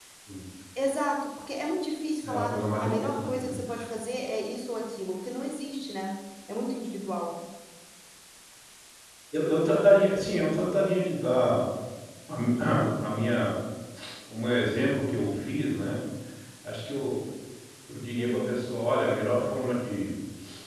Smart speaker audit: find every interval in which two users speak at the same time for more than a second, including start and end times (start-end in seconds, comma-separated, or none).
2.2-3.6